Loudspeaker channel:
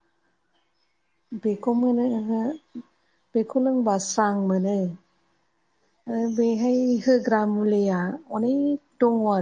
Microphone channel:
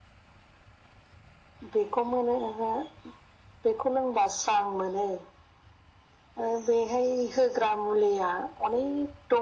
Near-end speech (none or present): none